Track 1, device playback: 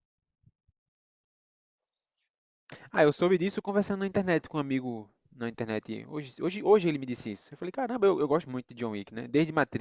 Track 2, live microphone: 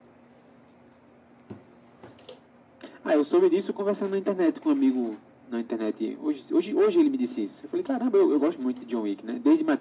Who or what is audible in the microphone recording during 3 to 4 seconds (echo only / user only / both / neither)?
echo only